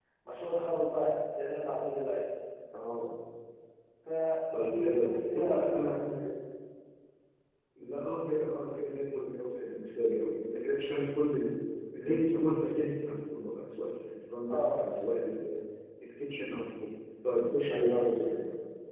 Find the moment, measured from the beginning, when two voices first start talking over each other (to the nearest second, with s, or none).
5 s